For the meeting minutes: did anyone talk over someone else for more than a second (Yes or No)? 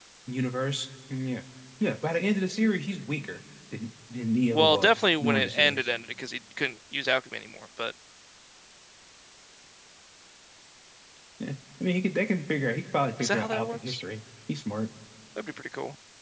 Yes